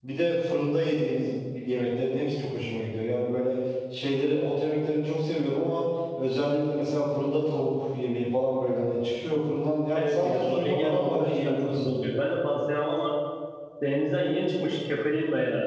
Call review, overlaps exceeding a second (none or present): present